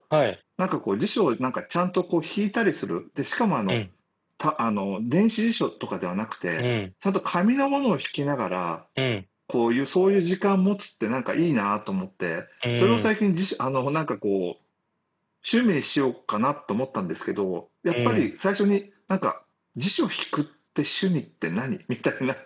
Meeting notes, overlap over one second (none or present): none